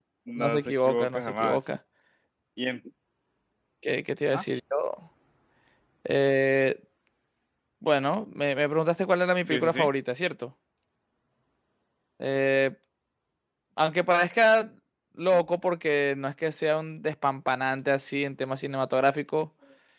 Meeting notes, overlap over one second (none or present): present